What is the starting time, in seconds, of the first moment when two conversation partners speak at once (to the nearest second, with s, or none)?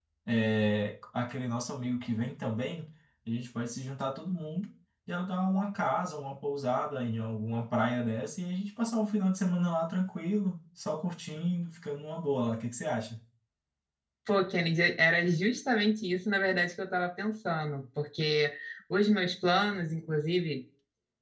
none